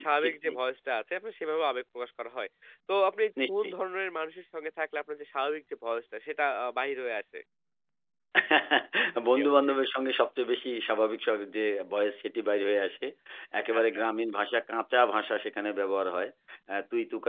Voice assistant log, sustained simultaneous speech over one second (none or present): none